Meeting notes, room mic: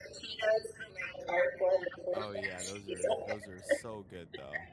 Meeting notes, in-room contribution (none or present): present